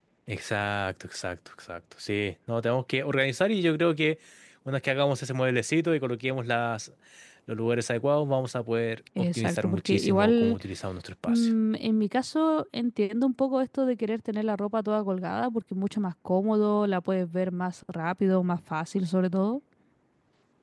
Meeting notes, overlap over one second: present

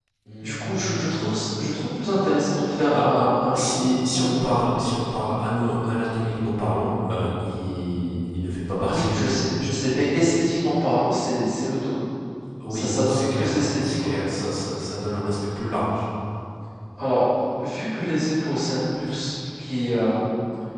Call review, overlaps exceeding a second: present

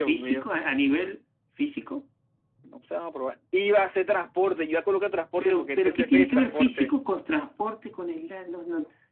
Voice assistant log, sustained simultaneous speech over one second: present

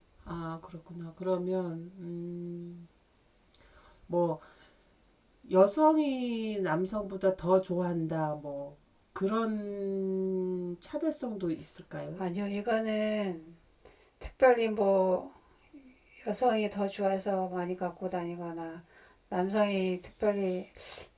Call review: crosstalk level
none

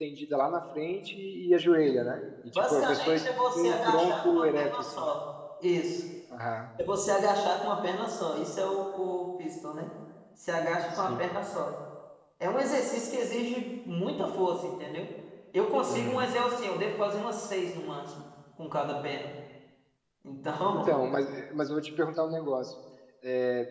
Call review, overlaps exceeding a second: present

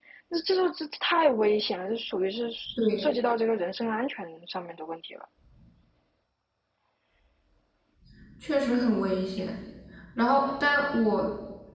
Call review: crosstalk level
none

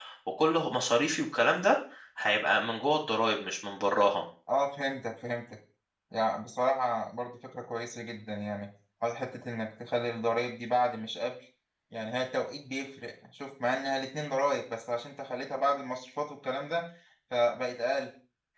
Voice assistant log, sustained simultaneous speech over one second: none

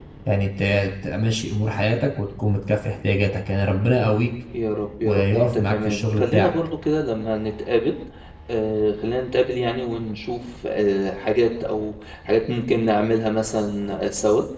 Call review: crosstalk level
present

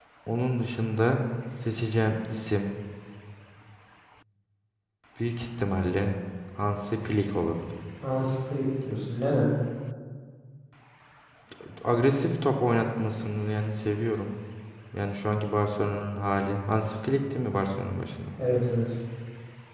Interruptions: none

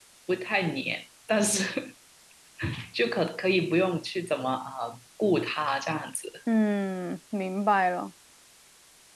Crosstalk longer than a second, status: none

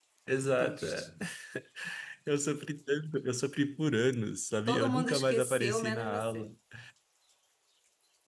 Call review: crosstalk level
present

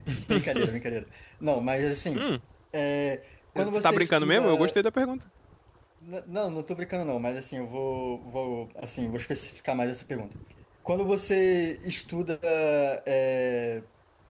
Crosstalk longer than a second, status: present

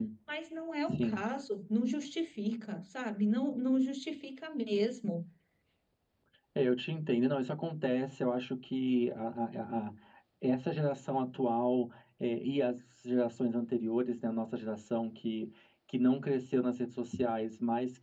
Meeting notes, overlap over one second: none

